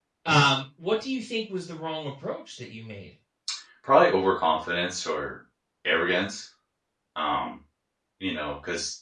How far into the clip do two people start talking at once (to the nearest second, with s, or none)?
none